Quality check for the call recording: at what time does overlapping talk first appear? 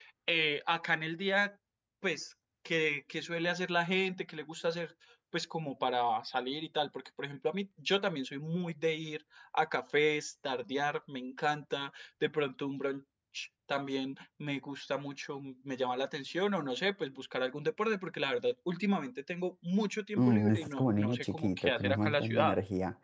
20.2 s

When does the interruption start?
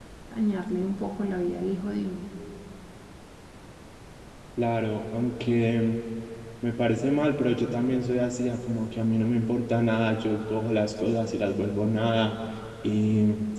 none

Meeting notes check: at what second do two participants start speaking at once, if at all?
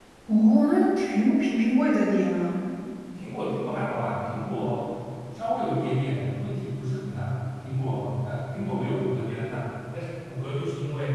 none

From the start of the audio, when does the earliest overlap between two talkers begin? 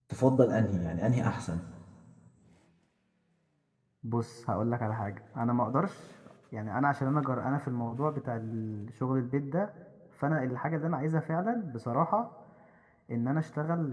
none

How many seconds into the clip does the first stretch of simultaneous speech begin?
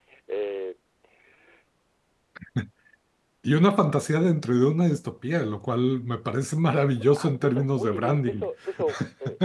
7.1 s

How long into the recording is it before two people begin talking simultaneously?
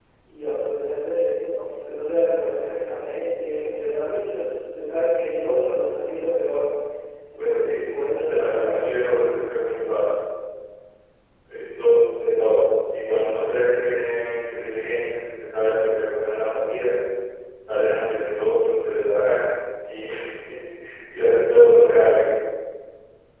7.4 s

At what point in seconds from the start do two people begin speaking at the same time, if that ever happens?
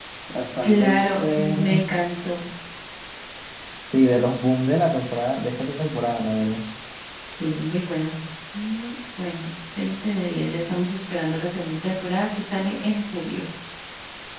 0.6 s

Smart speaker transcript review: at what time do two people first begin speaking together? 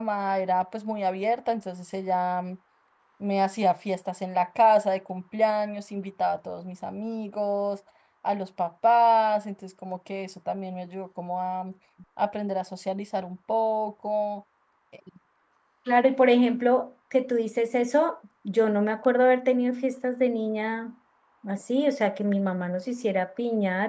none

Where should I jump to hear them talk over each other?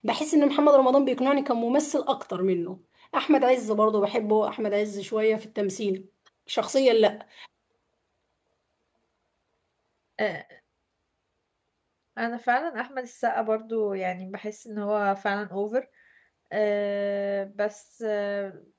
none

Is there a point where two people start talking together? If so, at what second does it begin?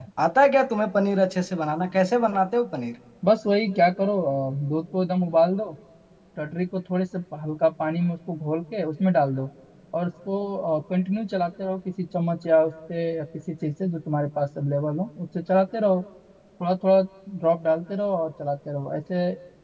none

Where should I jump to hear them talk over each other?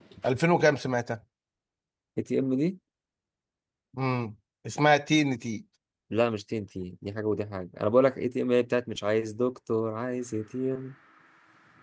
none

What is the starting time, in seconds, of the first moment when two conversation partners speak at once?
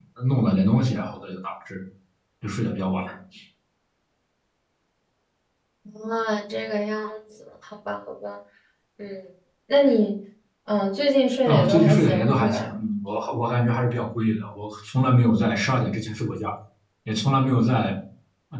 11.4 s

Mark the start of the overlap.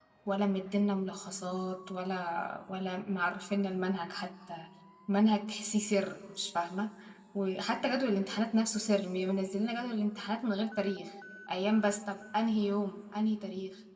none

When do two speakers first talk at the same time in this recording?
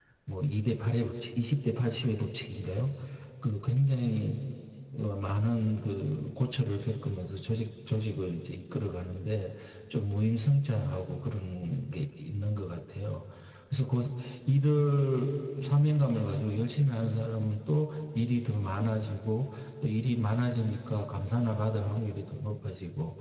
none

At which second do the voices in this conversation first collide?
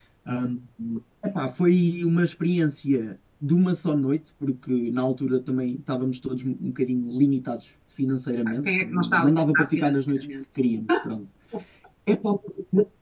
8.4 s

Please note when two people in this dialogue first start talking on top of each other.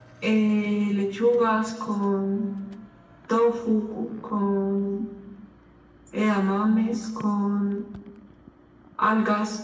none

